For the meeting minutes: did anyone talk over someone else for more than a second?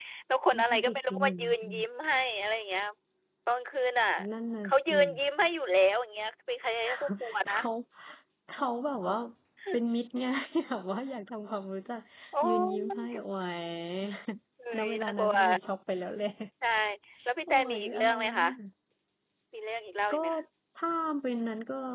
Yes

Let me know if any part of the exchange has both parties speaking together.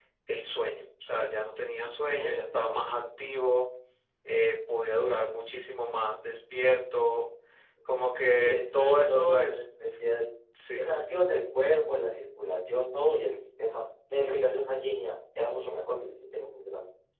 Yes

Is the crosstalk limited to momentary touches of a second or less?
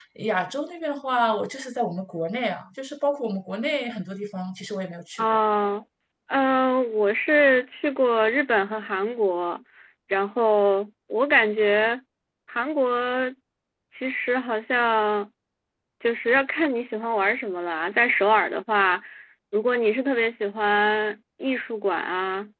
Yes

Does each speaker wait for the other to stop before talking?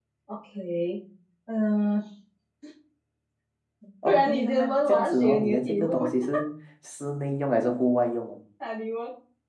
No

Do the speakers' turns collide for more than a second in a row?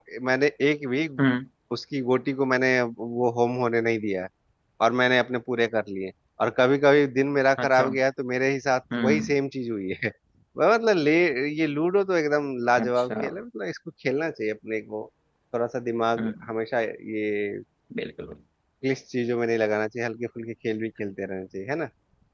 No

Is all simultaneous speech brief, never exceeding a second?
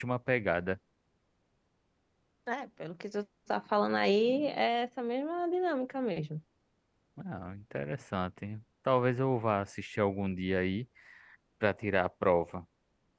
Yes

